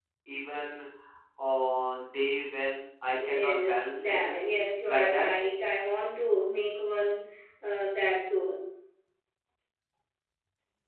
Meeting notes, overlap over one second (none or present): present